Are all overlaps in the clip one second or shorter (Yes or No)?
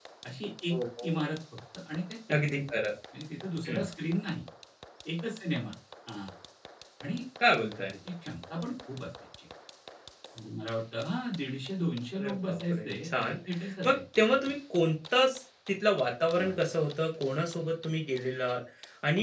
No